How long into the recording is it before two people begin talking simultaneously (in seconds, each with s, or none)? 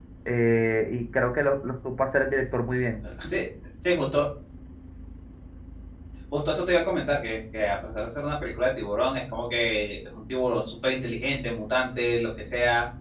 none